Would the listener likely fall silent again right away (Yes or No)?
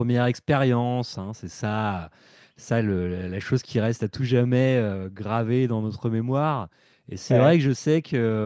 Yes